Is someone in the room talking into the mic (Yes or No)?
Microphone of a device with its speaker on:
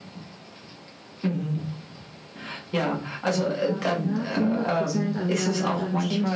Yes